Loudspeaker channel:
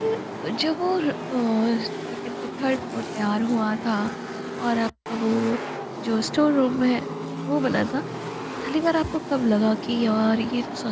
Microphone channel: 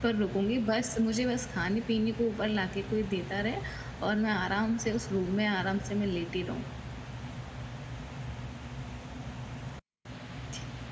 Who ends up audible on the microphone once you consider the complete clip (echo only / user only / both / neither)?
user only